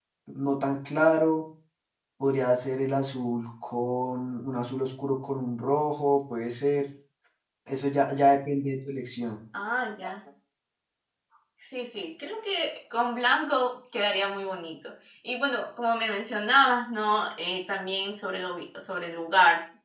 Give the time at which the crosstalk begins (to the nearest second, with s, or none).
none